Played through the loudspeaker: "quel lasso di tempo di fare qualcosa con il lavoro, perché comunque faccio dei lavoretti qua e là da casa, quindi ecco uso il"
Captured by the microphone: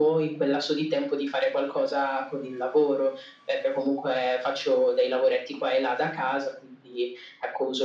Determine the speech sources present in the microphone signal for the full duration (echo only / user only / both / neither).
echo only